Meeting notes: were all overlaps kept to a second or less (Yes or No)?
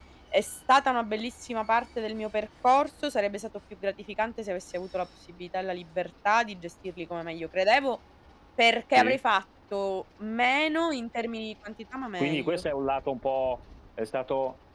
Yes